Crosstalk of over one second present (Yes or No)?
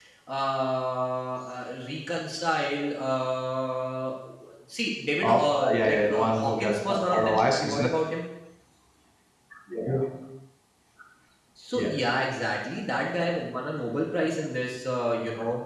Yes